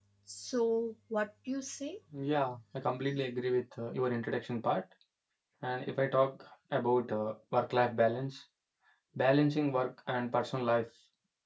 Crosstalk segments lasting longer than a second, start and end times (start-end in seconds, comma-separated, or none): none